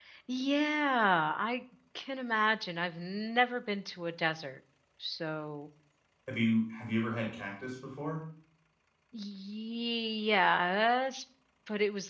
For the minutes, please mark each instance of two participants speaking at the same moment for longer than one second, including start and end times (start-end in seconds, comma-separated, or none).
none